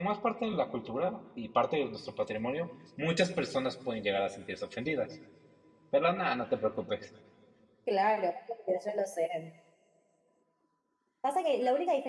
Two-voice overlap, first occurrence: none

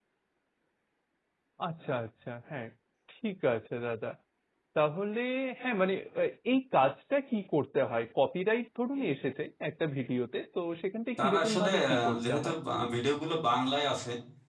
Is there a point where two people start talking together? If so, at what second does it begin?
11.2 s

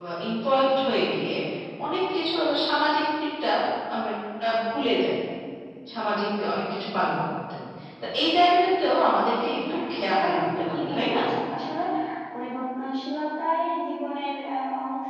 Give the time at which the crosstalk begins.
9.4 s

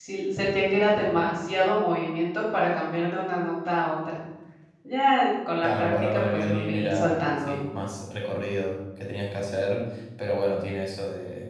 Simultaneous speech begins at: 5.6 s

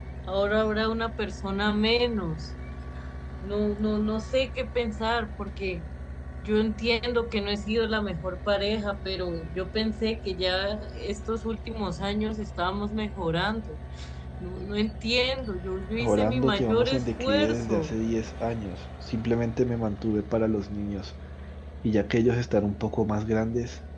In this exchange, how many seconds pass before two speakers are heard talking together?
15.9 s

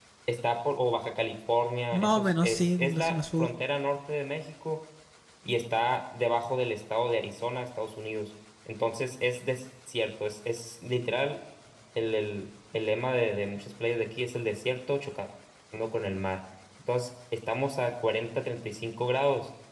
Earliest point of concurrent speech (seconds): 1.9 s

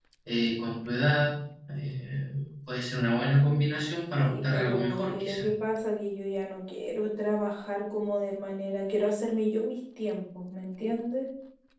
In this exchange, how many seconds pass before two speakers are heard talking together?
4.1 s

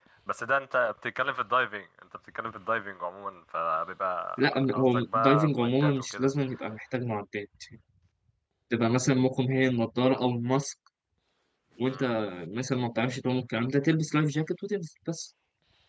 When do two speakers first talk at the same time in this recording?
4.4 s

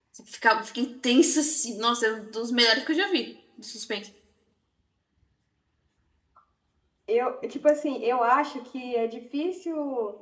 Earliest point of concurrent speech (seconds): none

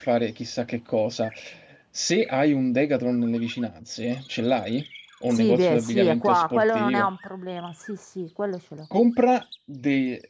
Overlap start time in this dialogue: 5.3 s

